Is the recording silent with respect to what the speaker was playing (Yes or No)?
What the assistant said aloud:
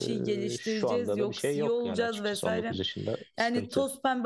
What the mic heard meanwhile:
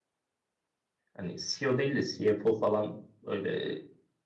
Yes